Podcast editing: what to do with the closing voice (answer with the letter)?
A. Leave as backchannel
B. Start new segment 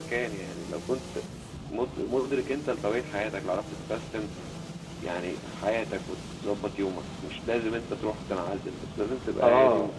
B